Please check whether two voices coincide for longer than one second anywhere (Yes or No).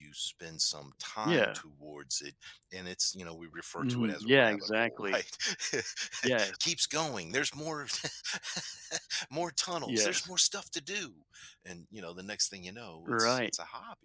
Yes